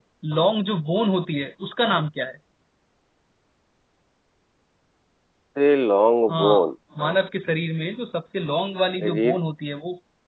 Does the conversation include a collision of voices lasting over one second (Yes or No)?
No